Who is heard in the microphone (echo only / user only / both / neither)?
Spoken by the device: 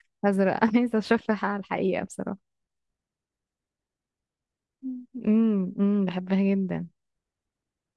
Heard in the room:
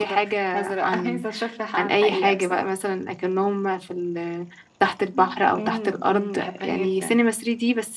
both